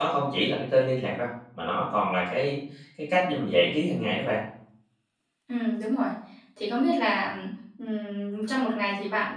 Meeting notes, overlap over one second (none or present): none